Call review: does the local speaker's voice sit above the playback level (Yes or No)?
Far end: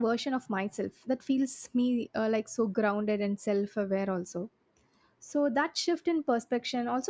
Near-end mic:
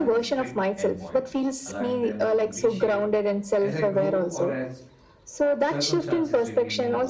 No